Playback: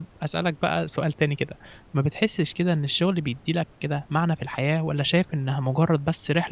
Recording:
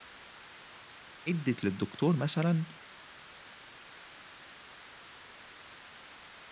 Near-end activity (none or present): present